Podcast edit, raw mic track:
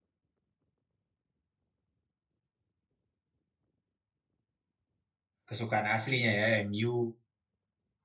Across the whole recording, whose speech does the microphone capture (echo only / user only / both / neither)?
user only